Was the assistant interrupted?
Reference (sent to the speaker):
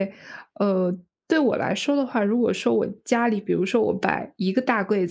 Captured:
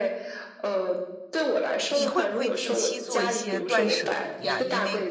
Yes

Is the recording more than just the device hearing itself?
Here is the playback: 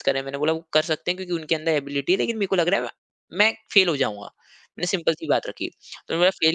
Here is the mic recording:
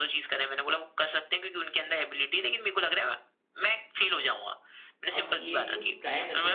Yes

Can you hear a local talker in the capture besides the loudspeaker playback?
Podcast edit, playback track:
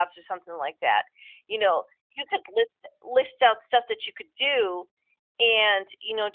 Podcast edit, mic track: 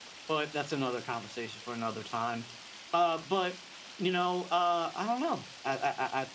Yes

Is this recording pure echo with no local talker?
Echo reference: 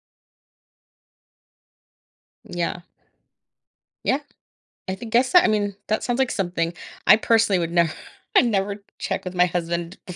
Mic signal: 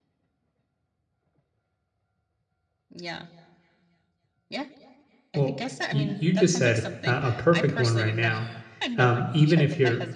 No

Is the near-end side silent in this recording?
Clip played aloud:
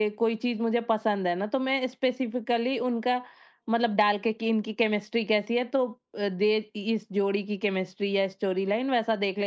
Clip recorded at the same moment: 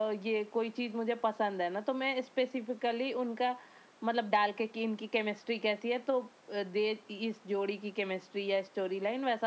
Yes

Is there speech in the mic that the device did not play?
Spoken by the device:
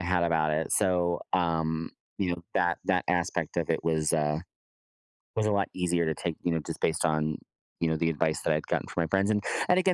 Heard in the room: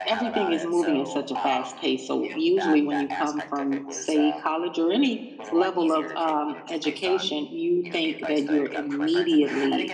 Yes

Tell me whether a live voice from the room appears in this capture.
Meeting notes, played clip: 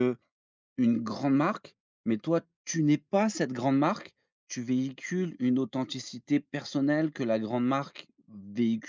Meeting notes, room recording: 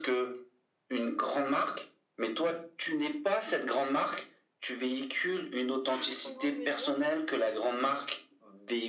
Yes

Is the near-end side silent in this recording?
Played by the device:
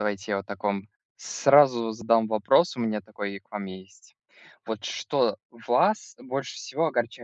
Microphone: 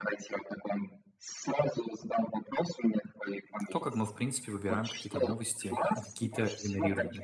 No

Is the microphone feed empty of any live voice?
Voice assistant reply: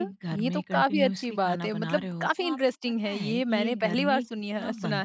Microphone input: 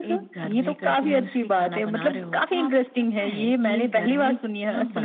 Yes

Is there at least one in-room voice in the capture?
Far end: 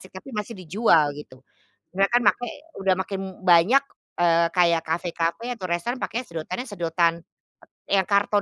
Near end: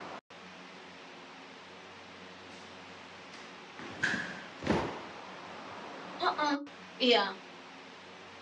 Yes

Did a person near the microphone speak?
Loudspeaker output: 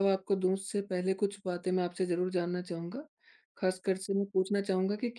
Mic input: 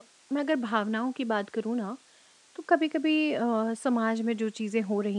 Yes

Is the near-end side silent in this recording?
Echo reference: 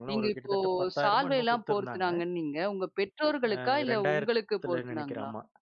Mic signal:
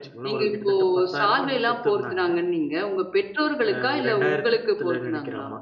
Yes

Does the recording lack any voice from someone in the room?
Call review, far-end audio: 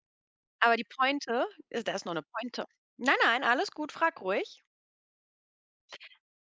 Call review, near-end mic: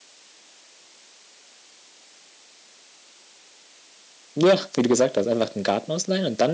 No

